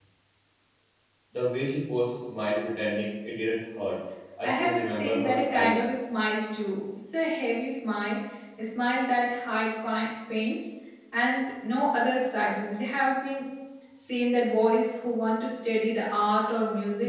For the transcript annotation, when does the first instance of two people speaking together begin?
4 s

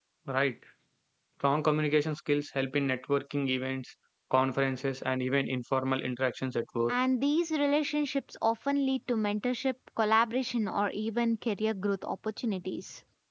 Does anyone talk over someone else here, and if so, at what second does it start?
none

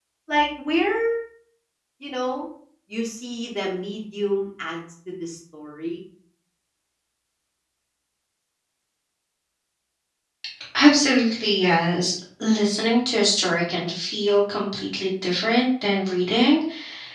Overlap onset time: none

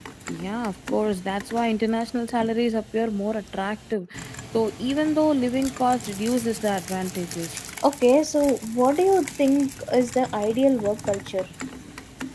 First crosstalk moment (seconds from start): none

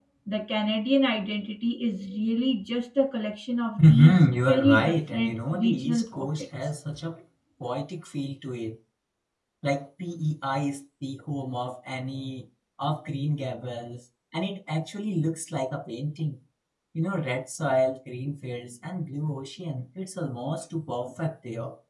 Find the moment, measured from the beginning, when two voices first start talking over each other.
4 s

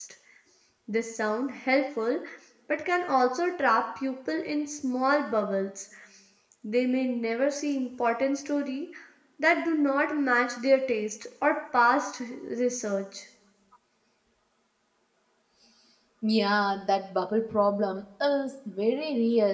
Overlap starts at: none

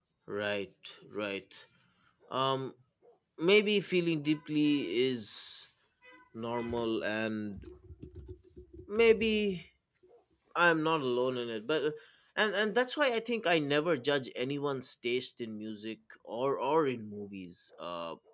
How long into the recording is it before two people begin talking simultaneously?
none

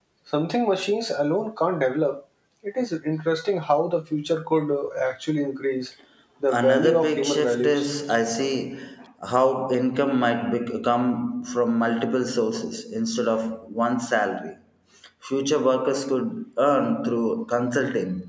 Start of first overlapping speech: 6 s

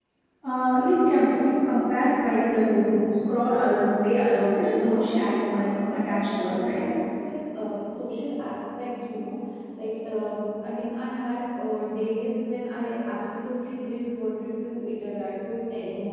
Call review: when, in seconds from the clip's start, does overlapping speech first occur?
5 s

